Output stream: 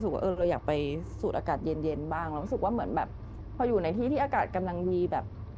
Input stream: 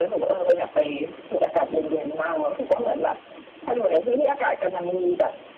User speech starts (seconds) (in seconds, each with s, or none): none